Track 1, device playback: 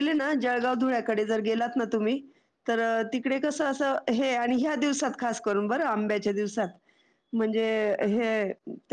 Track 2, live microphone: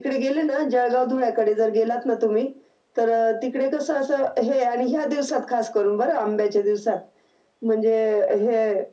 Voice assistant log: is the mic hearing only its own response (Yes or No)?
Yes